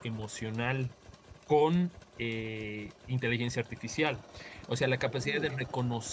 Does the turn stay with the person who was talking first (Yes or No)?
Yes